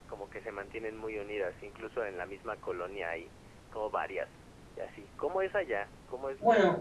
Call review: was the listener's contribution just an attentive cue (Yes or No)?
No